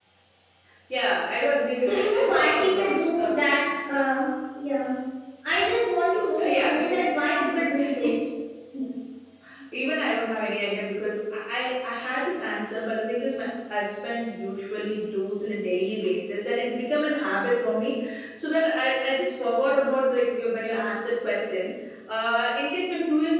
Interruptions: present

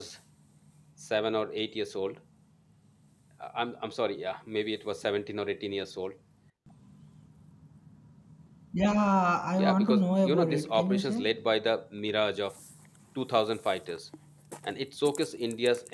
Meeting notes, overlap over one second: present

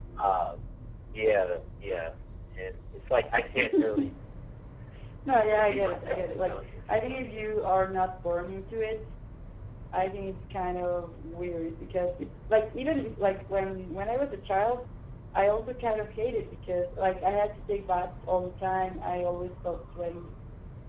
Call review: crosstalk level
present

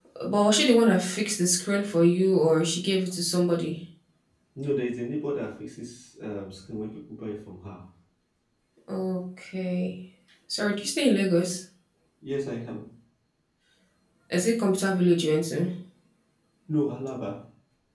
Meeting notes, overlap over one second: none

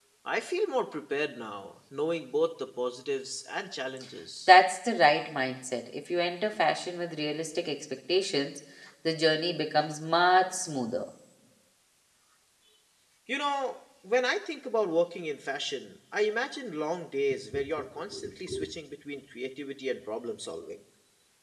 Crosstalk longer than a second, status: none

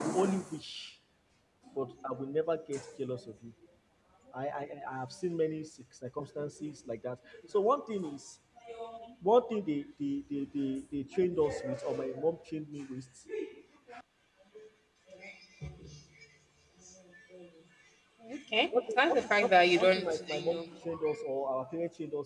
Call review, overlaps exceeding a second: present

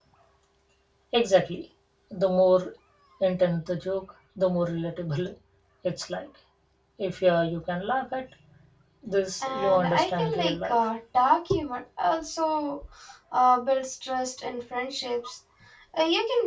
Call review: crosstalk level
present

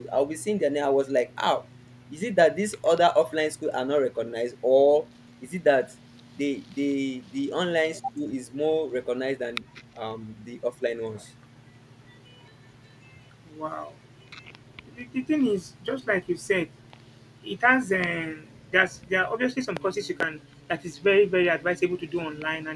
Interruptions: none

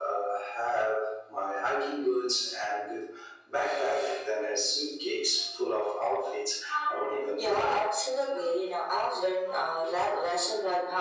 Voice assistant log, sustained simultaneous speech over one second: none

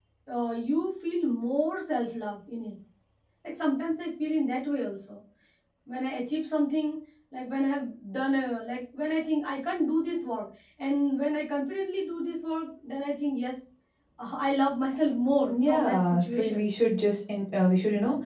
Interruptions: present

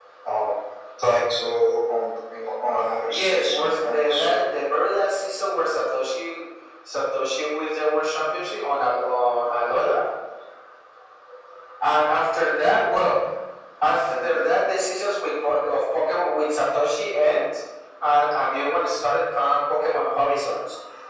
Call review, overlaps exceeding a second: present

